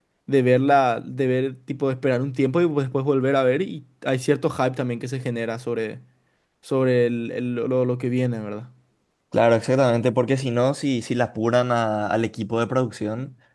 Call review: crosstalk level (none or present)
none